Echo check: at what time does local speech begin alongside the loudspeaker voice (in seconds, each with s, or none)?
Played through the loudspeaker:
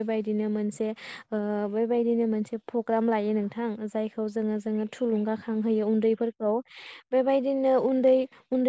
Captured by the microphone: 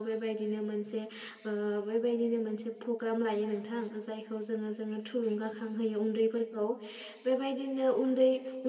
none